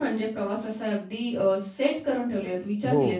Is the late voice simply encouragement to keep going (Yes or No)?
Yes